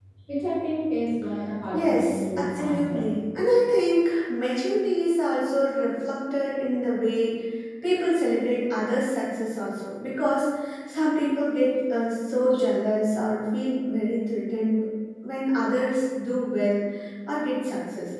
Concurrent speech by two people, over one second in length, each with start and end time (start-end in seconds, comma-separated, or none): 1.7-3.0